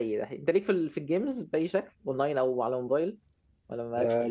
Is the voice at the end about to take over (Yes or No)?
Yes